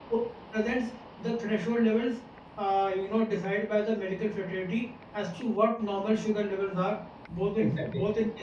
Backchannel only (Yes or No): Yes